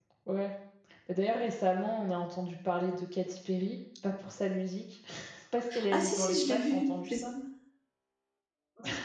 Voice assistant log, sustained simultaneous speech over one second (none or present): present